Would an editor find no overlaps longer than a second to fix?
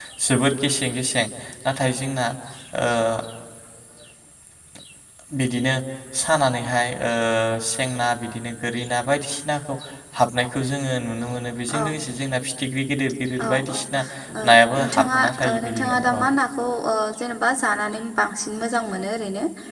No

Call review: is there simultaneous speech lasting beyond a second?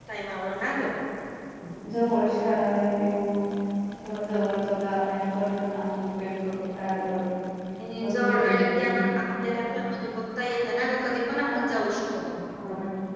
Yes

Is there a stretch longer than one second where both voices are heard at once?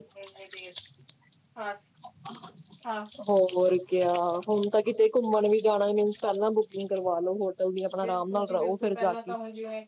Yes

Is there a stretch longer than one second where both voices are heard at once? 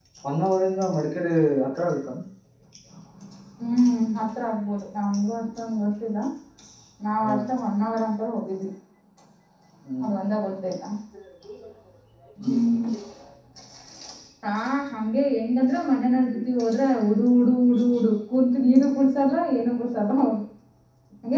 No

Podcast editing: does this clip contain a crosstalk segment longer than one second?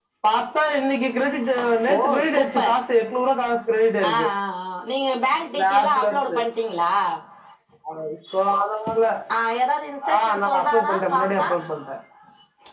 Yes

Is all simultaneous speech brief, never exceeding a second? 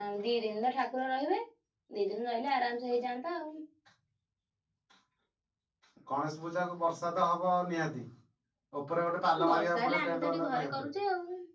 No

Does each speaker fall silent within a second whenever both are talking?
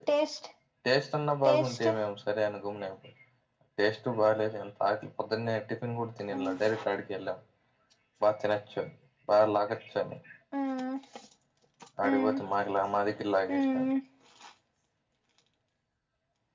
Yes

